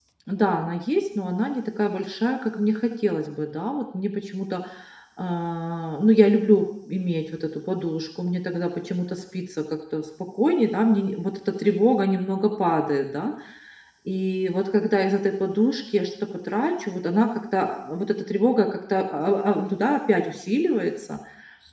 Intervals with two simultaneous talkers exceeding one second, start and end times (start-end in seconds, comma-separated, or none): none